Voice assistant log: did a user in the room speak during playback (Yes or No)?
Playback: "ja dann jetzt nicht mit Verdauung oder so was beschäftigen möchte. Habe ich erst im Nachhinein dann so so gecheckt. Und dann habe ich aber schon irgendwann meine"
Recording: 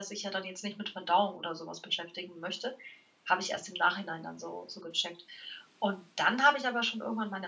No